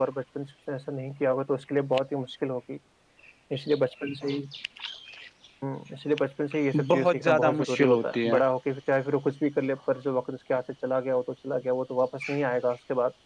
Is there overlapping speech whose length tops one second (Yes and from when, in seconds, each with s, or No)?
Yes, from 6.7 s